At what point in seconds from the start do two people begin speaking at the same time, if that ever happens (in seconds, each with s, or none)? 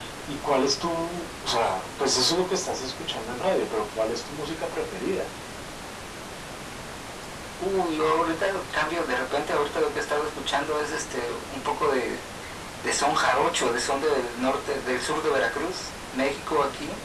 none